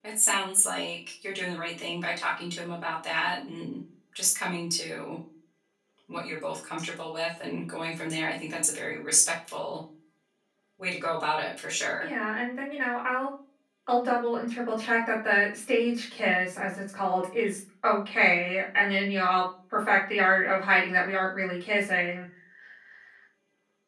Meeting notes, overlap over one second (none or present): none